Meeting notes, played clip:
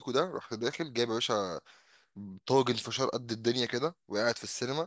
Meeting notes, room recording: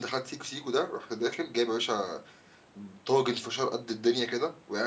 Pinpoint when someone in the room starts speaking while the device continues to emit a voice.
none

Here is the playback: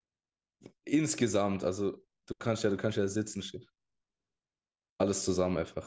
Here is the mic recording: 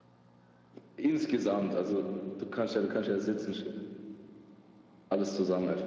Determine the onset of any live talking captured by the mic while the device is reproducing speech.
none

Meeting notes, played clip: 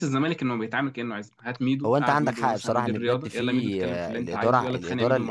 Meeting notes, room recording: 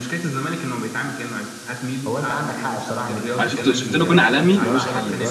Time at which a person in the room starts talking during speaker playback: 3.4 s

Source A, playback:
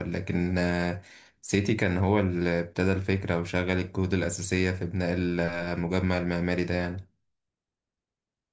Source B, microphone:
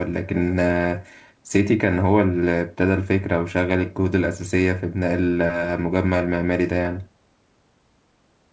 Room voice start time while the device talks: none

